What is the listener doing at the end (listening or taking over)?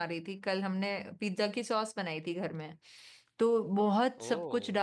listening